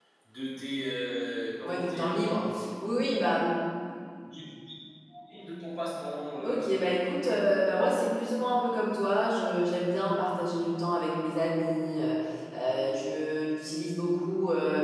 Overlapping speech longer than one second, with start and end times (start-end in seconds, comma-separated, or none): none